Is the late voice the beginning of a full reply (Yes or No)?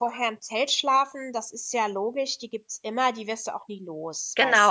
Yes